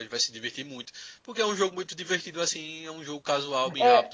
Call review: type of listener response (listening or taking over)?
taking over